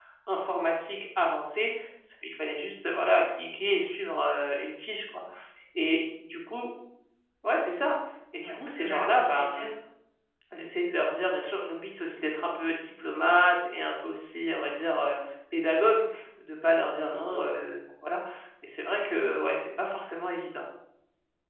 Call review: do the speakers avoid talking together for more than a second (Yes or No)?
No